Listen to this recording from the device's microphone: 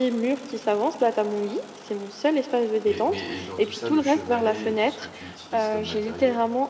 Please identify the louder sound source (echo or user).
echo